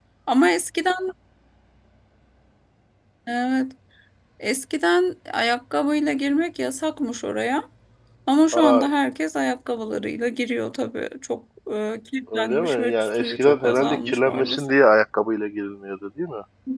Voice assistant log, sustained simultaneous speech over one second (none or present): present